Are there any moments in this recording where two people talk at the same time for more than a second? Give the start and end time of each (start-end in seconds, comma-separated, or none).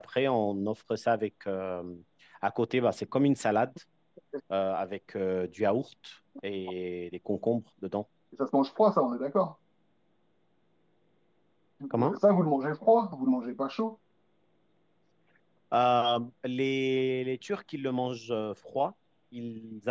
none